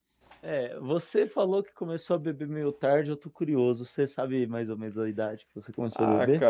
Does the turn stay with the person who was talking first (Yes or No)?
No